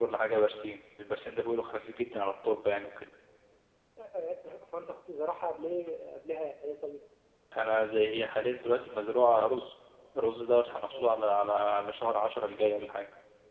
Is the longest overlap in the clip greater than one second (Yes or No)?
No